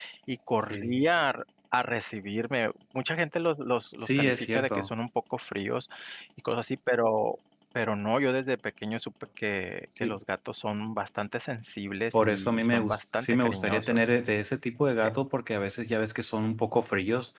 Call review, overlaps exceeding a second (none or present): present